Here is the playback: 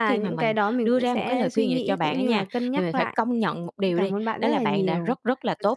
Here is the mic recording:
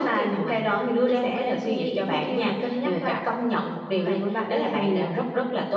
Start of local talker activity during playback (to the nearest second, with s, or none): none